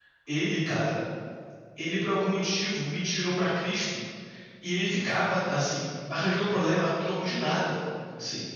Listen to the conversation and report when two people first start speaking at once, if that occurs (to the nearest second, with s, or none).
none